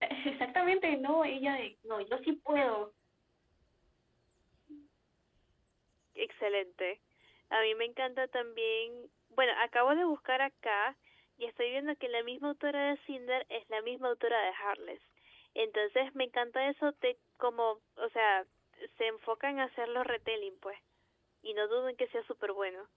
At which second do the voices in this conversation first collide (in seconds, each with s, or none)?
none